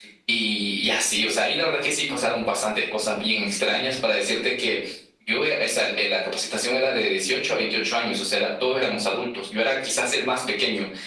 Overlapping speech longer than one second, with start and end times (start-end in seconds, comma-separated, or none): none